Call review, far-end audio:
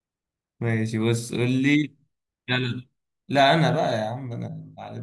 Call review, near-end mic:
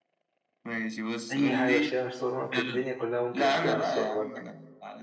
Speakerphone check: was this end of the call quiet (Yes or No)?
No